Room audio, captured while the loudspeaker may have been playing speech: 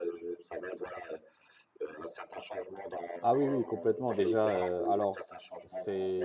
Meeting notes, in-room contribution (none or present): present